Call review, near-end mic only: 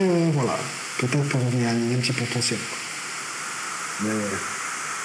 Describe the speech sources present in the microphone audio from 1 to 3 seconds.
echo only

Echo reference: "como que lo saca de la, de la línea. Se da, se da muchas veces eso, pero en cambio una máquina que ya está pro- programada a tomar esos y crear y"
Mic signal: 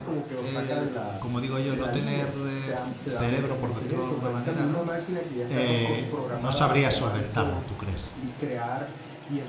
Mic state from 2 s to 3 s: both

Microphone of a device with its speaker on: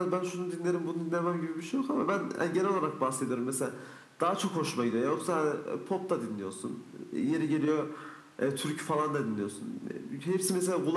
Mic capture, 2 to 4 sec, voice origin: echo only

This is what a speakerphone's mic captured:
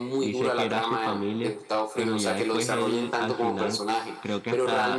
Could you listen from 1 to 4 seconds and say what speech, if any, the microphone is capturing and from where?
both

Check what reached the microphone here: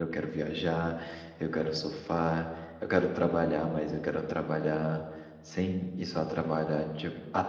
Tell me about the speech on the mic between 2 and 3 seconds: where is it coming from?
user only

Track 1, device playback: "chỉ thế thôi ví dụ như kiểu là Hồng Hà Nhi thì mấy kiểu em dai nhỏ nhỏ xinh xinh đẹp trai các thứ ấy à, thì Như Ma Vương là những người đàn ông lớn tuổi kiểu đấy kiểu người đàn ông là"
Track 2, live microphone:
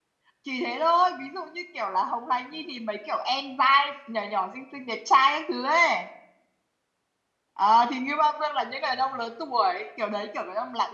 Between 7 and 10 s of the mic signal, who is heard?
echo only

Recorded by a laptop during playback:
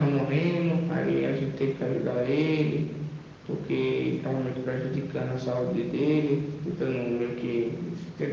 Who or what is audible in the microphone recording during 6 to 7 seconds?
echo only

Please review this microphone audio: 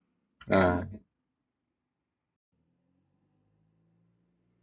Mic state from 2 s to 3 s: neither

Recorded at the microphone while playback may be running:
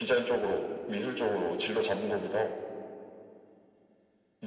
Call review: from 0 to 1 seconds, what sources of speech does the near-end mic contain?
echo only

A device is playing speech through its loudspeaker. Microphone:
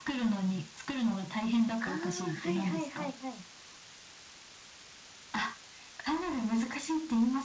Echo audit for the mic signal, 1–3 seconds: both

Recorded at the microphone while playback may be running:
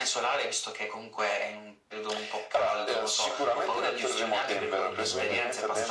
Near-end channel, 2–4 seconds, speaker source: echo only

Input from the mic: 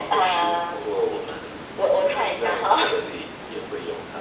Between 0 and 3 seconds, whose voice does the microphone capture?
echo only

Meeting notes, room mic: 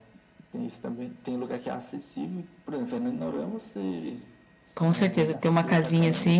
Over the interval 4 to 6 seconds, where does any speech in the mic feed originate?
both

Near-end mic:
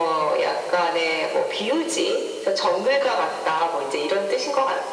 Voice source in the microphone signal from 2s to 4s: echo only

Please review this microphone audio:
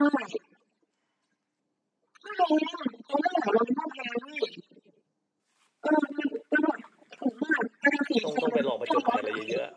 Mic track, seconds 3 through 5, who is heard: echo only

